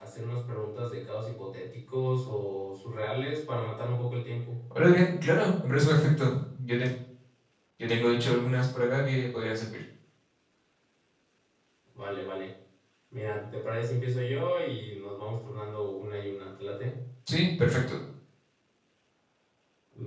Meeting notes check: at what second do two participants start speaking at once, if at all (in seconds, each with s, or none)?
none